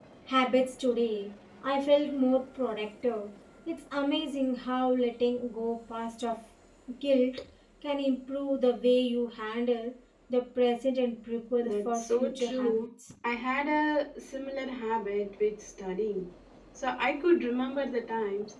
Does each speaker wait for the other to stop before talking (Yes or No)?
No